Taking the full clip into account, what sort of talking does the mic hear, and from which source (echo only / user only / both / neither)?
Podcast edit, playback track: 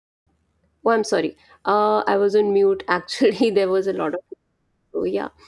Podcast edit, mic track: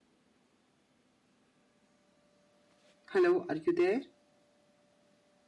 user only